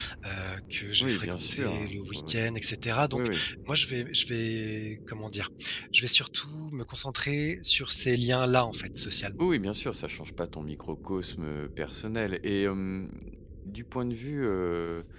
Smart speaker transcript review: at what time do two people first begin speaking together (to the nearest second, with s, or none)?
1 s